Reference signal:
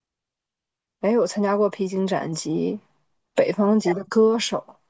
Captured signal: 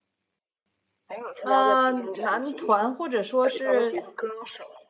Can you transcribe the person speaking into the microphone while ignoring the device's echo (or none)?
呃，男团或者说是，